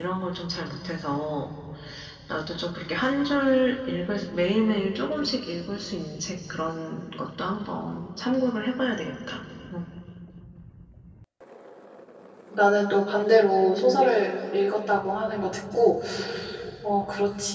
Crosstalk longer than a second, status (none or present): none